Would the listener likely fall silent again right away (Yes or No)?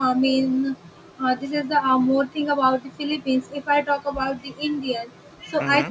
Yes